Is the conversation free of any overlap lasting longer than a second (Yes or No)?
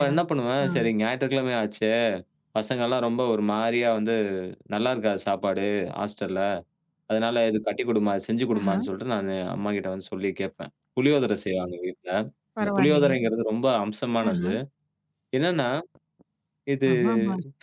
Yes